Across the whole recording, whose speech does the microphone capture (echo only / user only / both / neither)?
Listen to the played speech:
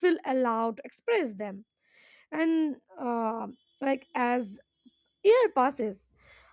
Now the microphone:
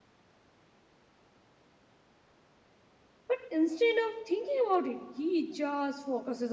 user only